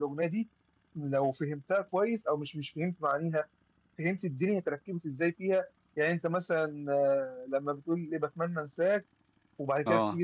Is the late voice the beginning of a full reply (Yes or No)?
No